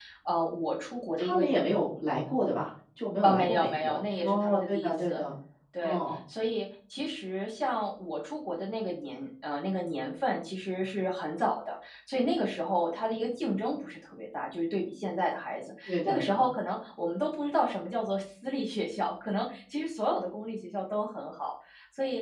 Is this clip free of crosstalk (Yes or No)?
No